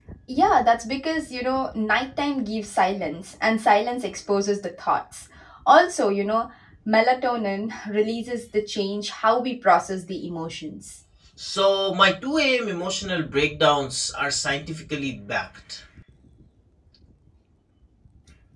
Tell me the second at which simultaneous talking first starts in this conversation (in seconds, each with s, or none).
none